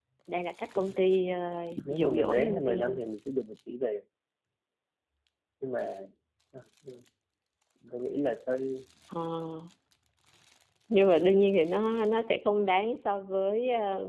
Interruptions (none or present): present